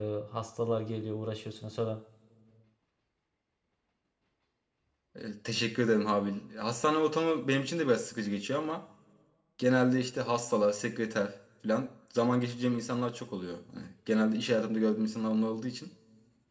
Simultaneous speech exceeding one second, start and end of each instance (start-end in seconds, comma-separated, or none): none